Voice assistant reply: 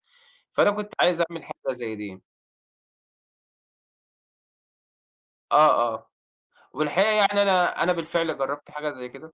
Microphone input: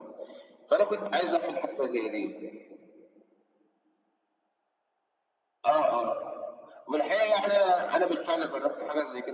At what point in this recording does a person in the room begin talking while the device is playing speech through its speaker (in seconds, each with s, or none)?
none